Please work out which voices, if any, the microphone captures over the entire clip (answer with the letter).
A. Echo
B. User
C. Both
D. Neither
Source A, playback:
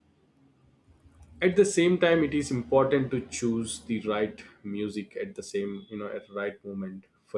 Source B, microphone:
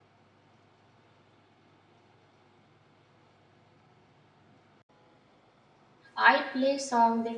B